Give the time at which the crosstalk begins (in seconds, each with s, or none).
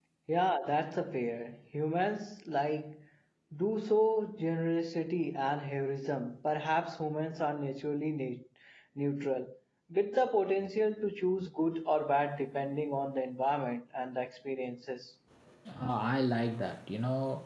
none